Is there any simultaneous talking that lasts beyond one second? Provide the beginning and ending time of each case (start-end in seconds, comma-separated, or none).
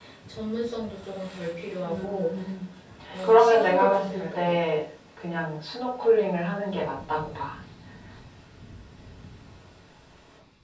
3.2-4.6